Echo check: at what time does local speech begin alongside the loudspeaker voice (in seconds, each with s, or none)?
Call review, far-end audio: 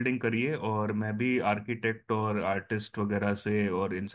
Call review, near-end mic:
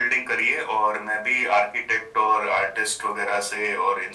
none